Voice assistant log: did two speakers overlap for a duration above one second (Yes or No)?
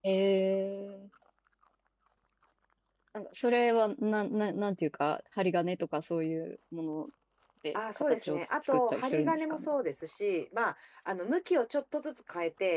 Yes